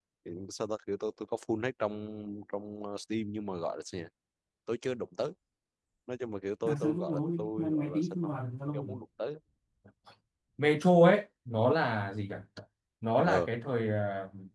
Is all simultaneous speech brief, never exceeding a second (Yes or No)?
No